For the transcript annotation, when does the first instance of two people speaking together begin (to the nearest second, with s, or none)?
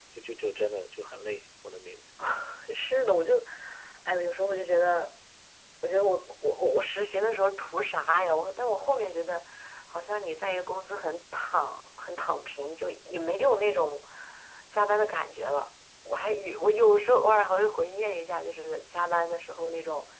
none